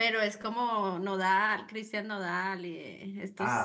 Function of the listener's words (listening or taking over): taking over